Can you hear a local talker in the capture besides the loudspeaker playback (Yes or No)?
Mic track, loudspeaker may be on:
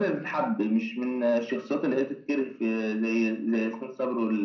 No